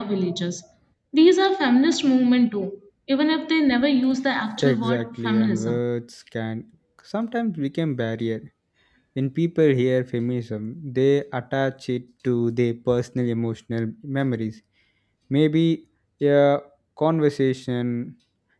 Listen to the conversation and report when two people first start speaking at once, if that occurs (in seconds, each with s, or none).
4.6 s